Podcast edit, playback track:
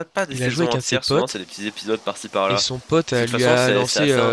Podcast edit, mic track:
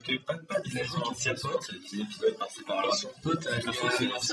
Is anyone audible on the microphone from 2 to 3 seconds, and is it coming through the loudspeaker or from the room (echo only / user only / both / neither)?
echo only